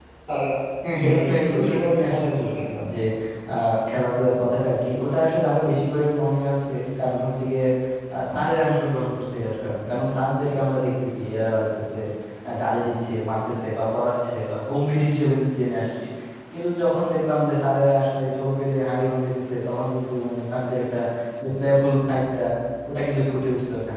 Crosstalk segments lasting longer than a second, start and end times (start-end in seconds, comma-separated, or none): 1.0-2.8